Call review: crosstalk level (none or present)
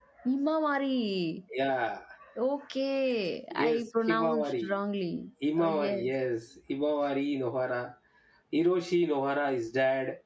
present